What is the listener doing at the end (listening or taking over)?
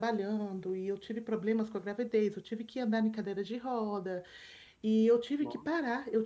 listening